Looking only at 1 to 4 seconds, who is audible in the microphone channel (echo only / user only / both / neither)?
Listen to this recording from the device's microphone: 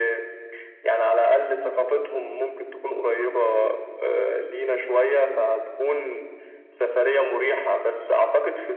echo only